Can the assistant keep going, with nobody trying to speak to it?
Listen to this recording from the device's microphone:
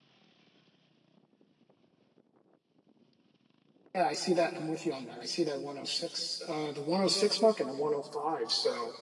No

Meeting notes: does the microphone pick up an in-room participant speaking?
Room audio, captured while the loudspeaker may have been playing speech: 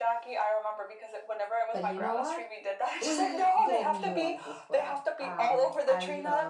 Yes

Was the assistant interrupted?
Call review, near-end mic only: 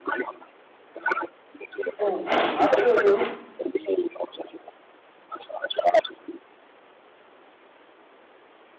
Yes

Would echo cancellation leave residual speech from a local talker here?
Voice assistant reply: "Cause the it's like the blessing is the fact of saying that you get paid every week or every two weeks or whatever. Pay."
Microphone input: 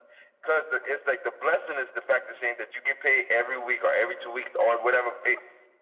No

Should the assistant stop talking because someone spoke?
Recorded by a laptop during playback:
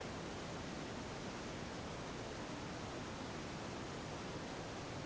No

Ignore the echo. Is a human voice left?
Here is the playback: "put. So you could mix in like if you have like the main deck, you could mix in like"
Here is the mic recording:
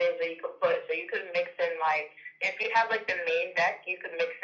No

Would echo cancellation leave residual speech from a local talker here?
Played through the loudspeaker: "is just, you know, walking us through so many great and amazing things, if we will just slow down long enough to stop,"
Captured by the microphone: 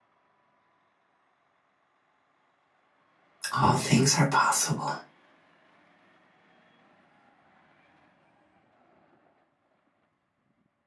Yes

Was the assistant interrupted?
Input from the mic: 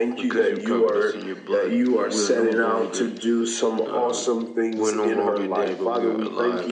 No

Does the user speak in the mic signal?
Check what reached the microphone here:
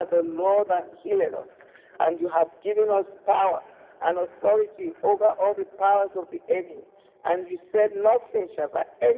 No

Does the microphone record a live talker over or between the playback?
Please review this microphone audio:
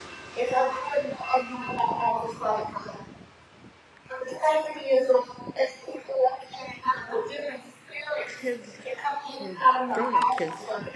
Yes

